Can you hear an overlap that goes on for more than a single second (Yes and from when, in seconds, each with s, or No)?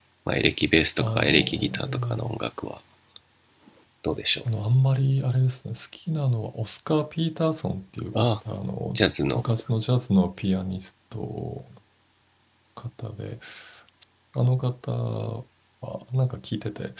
Yes, from 1.0 s